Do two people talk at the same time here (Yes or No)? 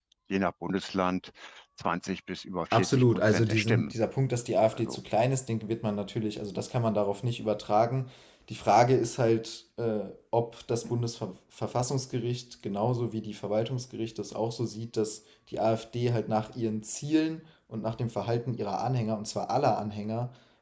Yes